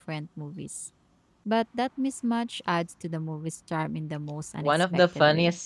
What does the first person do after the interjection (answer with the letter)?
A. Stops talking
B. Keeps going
A